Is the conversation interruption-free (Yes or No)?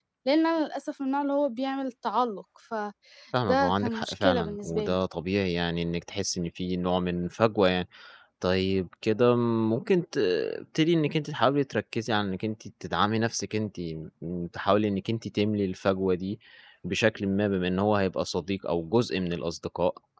No